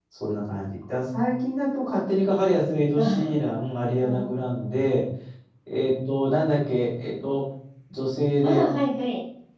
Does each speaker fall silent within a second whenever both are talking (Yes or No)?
Yes